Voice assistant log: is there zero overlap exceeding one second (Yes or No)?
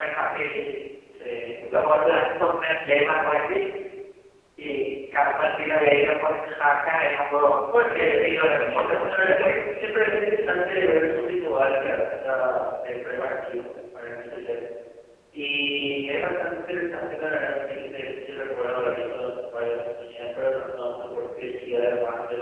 No